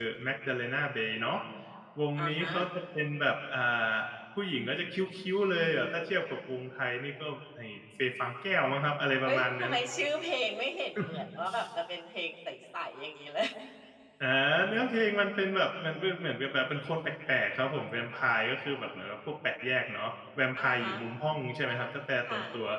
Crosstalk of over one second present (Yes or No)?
No